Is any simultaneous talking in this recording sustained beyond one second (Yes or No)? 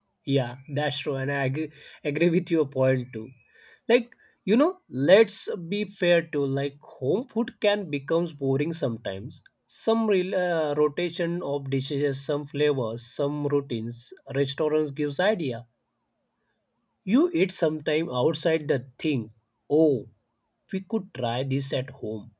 No